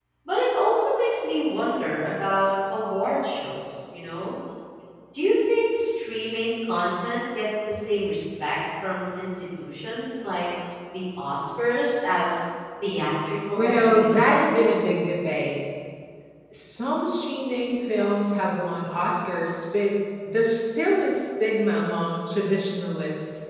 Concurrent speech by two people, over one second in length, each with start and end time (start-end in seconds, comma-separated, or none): 13.6-14.8